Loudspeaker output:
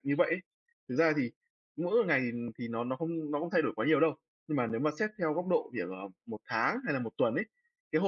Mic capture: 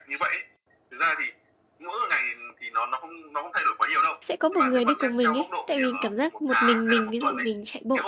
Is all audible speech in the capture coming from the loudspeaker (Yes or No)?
No